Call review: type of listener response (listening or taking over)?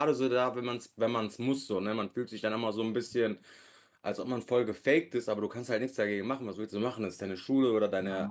taking over